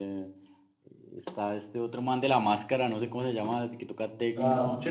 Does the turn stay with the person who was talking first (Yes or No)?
No